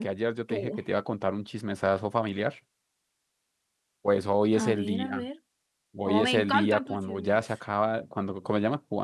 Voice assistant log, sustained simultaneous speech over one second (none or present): present